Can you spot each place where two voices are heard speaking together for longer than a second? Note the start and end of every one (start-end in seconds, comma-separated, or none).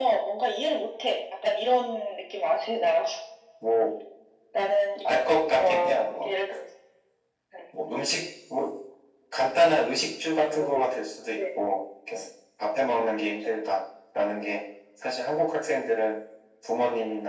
5.1-6.3